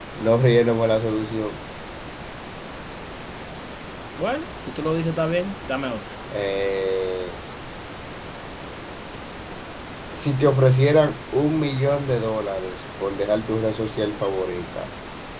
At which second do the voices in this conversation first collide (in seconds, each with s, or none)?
none